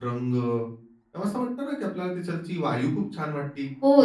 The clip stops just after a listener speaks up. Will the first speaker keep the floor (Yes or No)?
No